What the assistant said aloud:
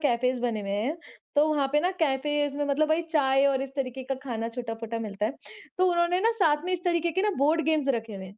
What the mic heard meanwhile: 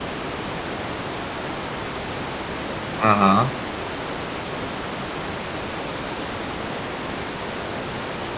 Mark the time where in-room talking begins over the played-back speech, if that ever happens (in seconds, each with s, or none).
3.0 s